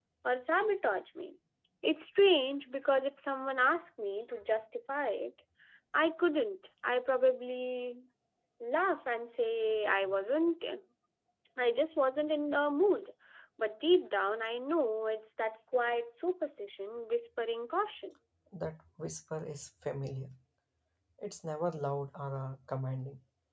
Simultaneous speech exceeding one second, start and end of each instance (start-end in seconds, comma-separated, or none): none